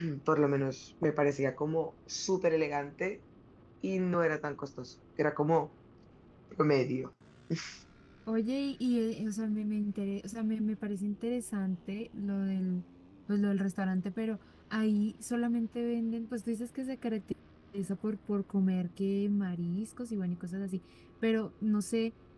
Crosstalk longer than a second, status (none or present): none